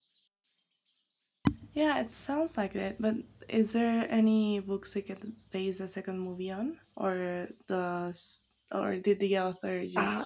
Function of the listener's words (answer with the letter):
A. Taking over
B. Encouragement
A